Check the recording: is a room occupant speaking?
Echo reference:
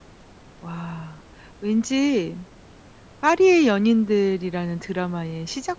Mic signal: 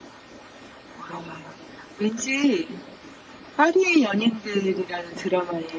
No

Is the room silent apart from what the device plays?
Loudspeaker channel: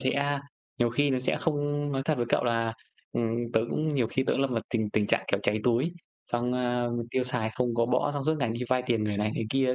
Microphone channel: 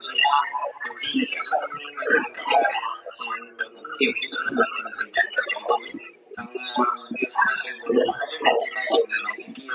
Yes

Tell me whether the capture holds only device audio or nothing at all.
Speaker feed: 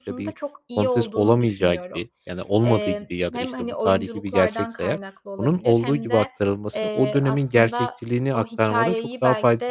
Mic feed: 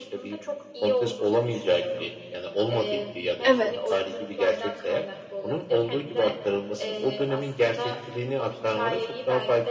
No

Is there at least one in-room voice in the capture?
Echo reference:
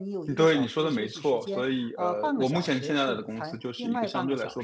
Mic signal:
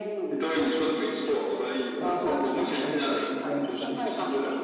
Yes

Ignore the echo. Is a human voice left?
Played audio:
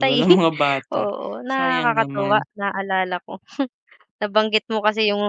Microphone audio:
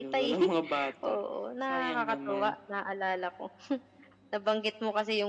No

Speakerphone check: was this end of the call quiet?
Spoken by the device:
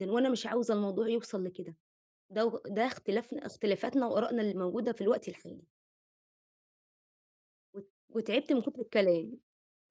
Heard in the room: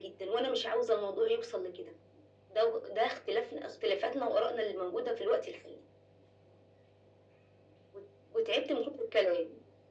Yes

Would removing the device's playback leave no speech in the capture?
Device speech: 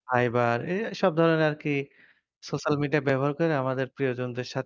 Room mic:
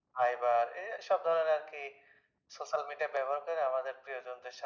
Yes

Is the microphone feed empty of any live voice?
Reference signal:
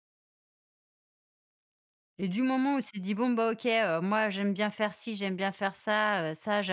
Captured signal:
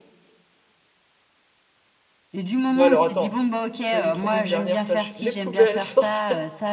No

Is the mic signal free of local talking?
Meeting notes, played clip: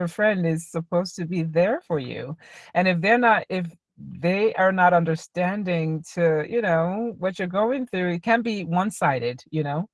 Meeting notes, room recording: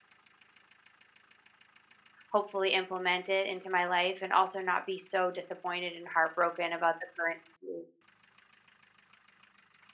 No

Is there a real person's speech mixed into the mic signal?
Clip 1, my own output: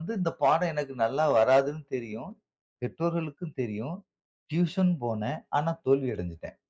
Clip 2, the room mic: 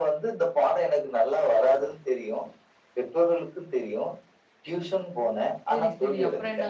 Yes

